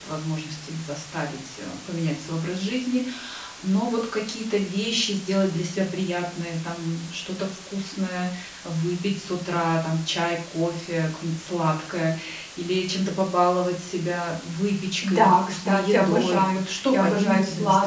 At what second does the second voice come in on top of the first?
15 s

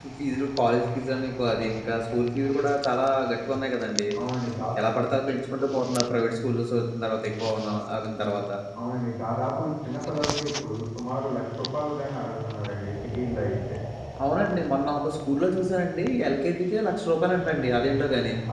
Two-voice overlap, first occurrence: none

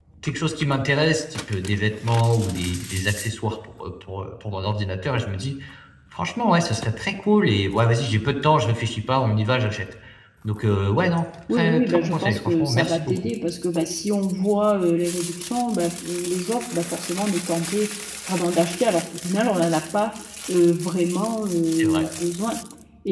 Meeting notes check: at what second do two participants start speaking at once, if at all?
12 s

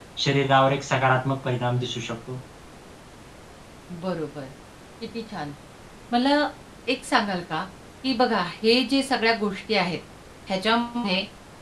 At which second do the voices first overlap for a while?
none

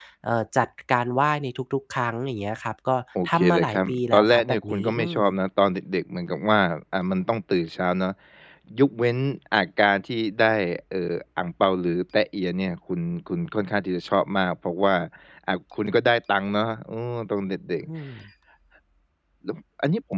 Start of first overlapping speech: 3 s

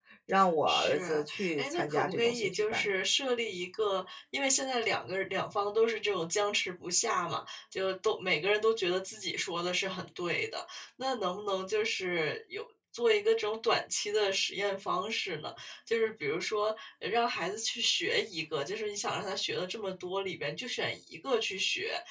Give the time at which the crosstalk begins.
1 s

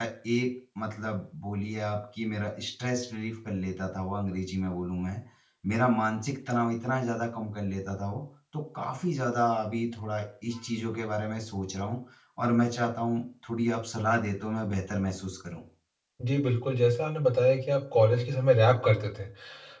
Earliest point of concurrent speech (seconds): none

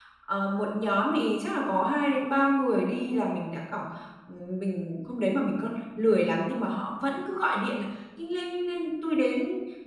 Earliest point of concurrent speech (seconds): none

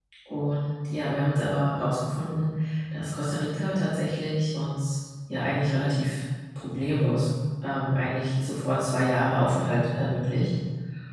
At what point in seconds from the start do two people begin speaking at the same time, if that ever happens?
none

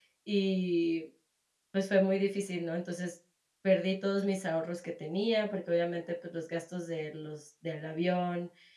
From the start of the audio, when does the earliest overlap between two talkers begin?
none

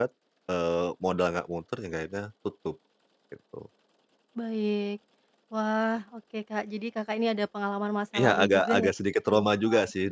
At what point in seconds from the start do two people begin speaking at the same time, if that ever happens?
8 s

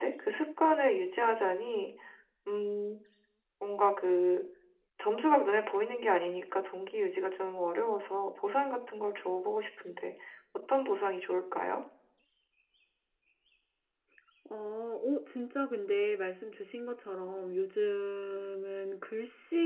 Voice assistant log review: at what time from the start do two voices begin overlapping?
none

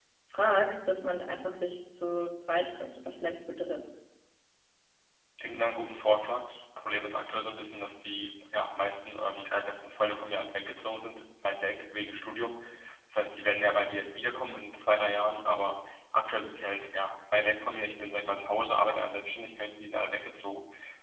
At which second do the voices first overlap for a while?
none

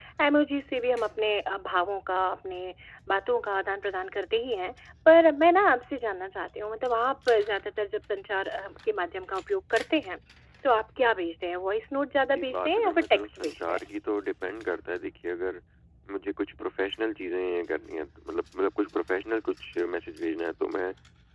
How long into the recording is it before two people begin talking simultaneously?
12 s

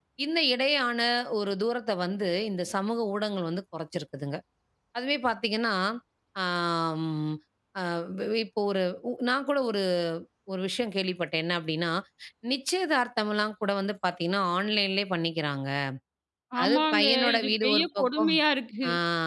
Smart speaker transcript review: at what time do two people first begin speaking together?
17 s

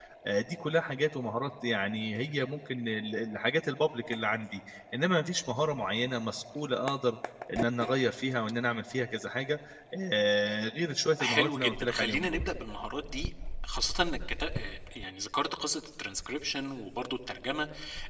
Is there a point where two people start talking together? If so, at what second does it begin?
11 s

